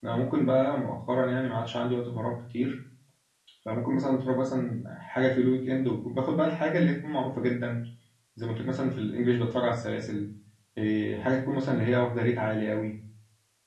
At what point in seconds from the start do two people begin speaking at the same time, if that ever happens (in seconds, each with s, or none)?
none